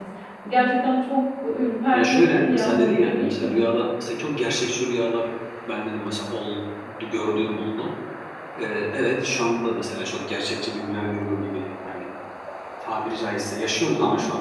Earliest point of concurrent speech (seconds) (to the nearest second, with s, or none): 2 s